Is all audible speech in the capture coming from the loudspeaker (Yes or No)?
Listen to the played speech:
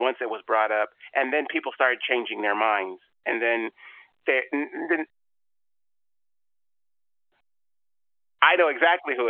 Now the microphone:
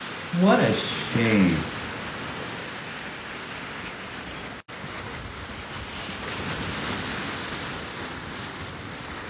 No